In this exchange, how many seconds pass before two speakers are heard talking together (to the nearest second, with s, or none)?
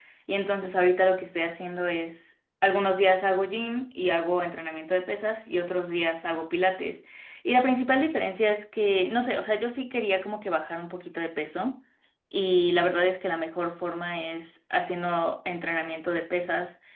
none